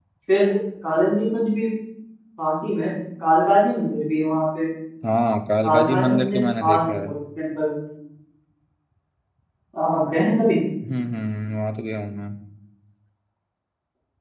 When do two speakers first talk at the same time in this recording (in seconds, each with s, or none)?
5.6 s